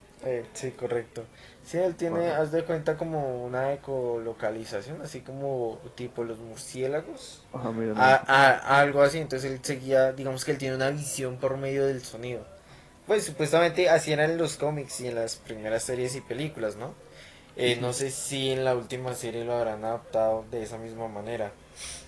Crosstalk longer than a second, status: none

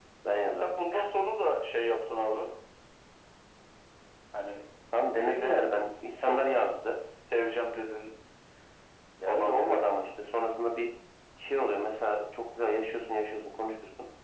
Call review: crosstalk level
present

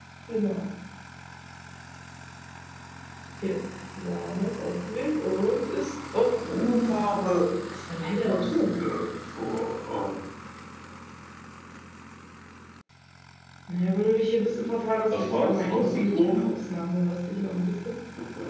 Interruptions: present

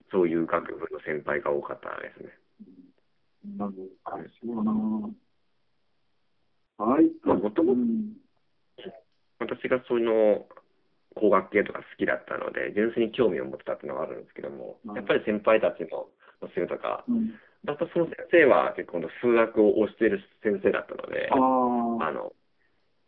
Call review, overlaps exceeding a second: none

